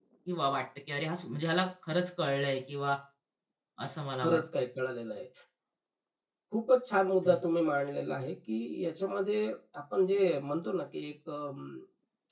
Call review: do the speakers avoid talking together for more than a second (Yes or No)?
Yes